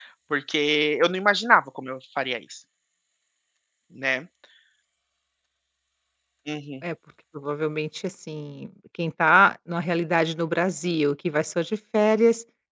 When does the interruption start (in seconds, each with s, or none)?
none